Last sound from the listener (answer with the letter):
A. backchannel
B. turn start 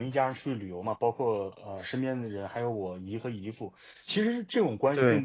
A